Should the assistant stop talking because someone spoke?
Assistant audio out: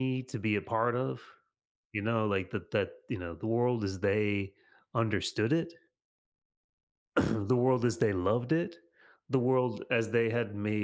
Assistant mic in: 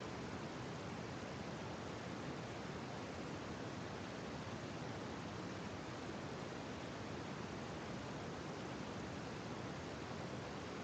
No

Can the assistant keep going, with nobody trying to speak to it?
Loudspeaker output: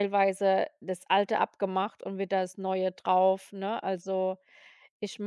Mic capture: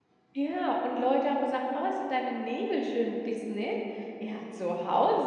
No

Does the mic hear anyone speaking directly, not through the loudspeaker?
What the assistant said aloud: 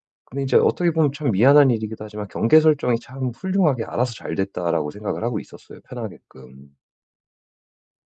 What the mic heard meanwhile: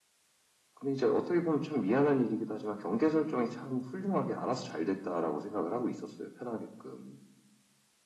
No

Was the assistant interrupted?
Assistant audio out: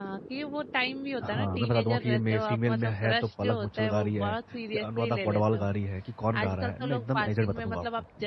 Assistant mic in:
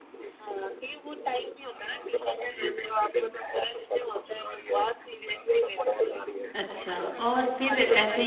Yes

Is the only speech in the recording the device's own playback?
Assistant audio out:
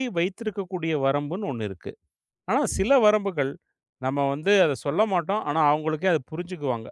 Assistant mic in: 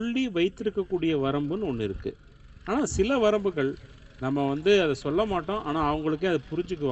Yes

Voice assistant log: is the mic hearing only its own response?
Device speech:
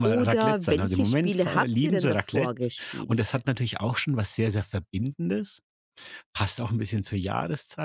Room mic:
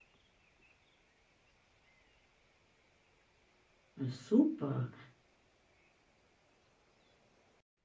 No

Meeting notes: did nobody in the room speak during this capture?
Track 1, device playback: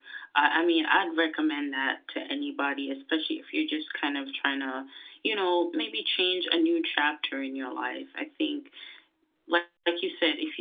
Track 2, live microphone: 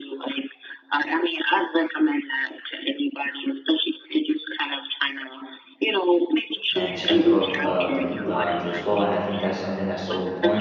No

